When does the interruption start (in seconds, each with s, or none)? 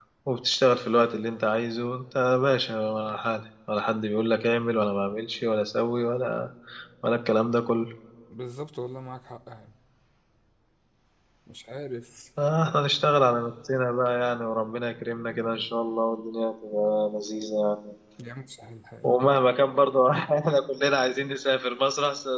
none